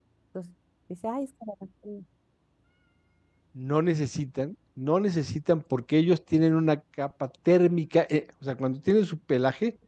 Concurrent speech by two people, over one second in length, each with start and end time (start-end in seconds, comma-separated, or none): none